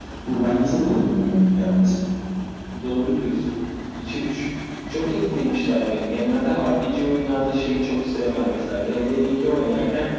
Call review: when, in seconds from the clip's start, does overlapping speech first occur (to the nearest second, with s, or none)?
none